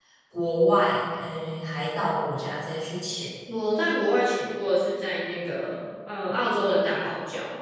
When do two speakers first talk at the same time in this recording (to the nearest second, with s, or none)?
none